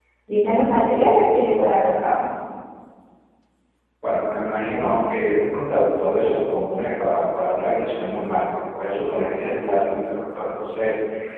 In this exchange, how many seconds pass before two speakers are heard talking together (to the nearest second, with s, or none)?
none